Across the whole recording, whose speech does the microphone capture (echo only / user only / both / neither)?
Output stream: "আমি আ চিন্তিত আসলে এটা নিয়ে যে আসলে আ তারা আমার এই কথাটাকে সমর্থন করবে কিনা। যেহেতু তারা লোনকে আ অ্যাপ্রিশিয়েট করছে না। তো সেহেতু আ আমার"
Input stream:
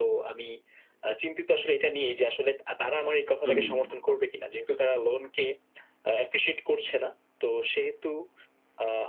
both